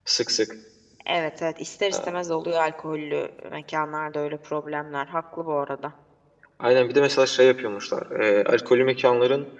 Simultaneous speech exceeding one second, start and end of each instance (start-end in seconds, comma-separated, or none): none